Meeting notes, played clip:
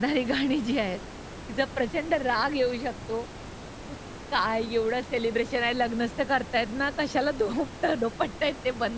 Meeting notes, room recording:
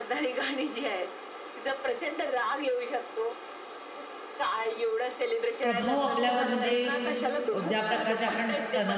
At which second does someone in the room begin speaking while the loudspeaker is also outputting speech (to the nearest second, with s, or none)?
6 s